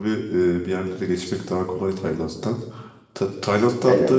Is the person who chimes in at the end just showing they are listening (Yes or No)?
Yes